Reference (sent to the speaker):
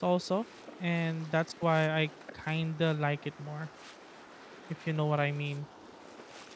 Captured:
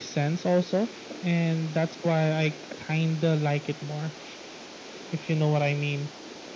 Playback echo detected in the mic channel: Yes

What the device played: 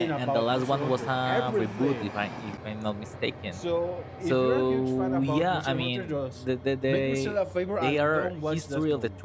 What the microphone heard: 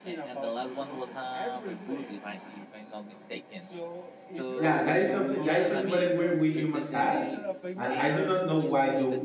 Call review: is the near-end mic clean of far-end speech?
No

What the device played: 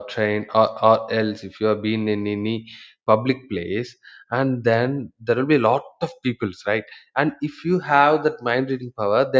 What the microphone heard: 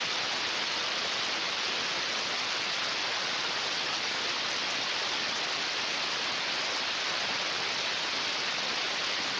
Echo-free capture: Yes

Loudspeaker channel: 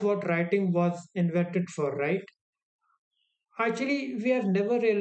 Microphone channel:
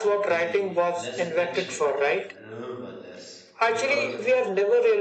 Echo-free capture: No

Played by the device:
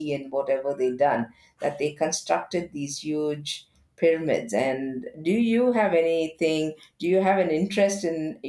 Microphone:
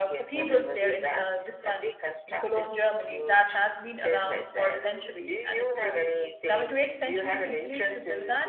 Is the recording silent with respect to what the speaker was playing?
No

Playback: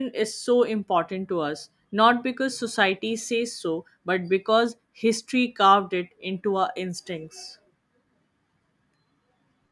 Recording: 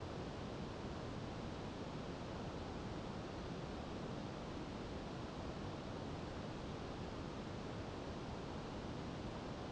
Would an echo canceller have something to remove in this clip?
No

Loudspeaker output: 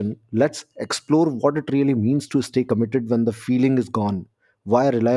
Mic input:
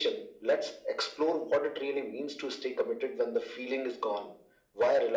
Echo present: Yes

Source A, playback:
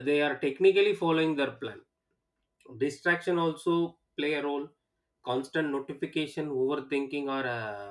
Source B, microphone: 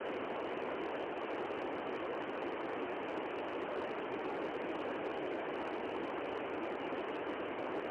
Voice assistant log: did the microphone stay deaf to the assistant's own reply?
Yes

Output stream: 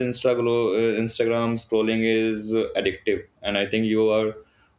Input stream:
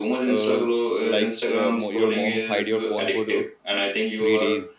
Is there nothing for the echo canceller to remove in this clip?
No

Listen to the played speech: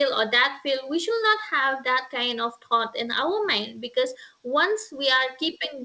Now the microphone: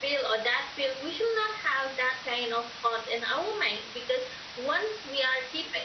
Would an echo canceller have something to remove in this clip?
Yes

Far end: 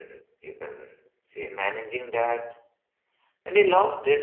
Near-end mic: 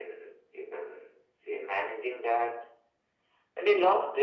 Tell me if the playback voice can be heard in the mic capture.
Yes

